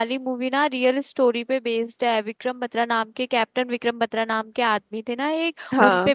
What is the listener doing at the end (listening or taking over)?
listening